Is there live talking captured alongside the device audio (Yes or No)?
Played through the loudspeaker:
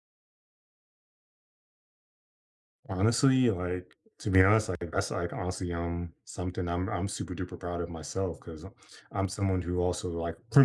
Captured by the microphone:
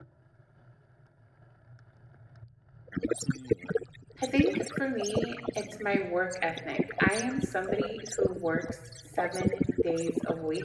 Yes